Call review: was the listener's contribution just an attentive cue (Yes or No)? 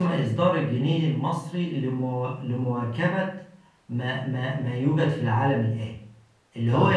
Yes